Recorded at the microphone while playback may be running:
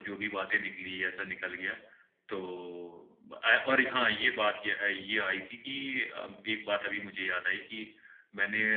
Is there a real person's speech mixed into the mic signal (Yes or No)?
No